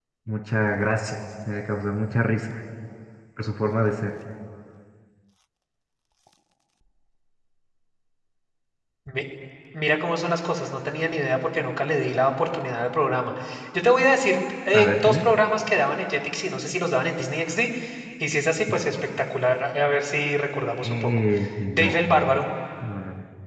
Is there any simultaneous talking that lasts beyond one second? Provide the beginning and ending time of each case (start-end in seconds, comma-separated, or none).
none